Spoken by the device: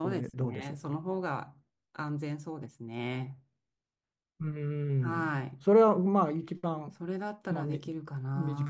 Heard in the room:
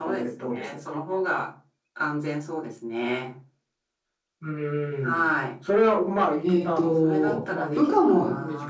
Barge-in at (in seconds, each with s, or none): 6.4 s